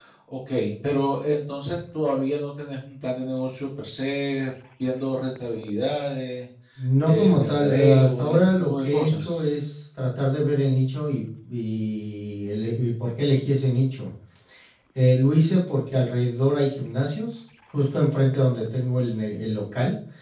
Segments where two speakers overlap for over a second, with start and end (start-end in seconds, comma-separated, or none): 7.0-9.4